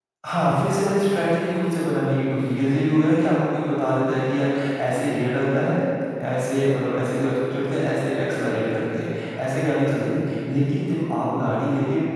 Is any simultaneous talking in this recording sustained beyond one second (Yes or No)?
No